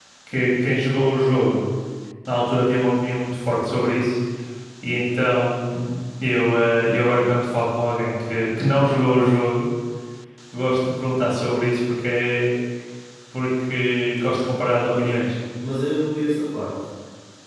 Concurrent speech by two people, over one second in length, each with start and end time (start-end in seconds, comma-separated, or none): none